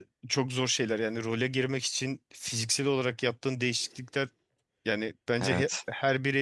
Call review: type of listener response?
listening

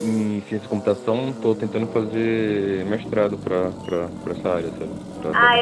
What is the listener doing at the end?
taking over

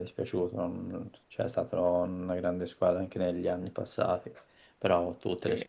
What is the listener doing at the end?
listening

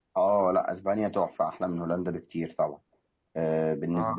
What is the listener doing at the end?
taking over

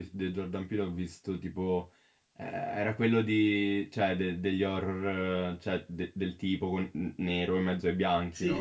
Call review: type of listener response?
taking over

